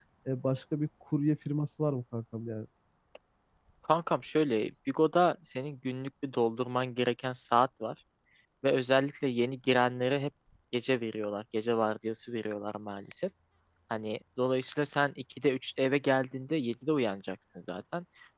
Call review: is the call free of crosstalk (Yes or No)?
Yes